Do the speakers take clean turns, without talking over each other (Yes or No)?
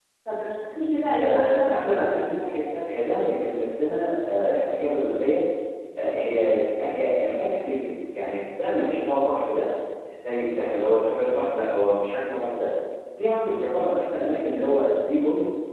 No